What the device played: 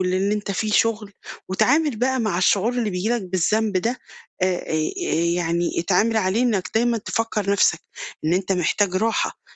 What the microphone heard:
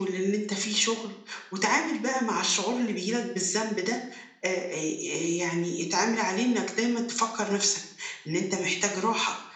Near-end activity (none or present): none